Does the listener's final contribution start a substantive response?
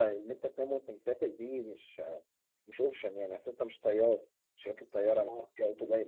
No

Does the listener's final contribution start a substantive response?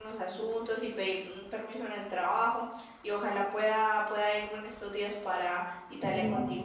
Yes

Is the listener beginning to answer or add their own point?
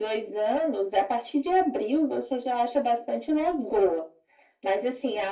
No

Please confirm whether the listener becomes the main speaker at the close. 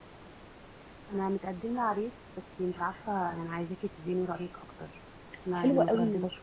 Yes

